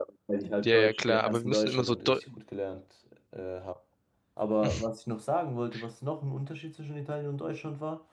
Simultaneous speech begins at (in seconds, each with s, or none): 0.6 s